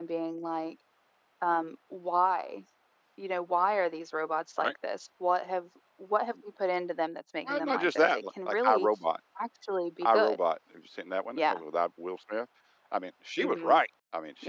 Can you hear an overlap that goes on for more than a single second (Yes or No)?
Yes